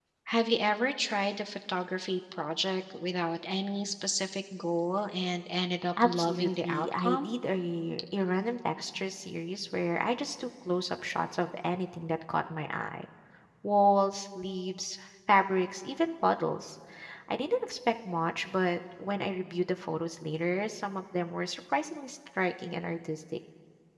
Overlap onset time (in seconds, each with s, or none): 6.0 s